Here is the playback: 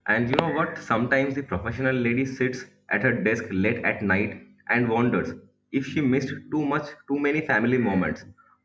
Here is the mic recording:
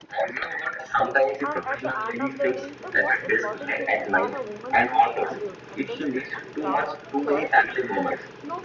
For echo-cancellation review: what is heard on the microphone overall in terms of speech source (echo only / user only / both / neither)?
both